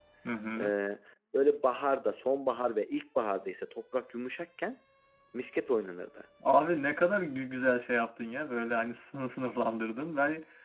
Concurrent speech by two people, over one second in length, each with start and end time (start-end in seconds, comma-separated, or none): none